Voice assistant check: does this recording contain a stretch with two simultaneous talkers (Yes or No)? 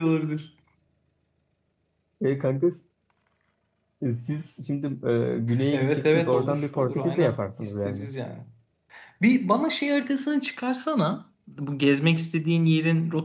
Yes